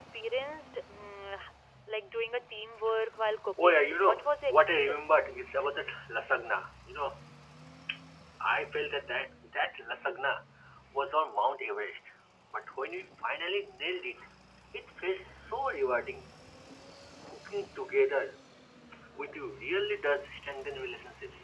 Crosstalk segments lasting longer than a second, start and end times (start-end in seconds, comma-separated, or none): 3.6-5.1